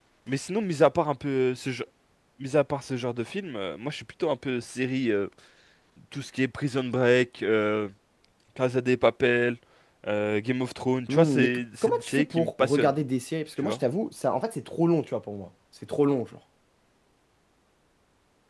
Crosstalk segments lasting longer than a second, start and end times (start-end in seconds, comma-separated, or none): 11.1-12.9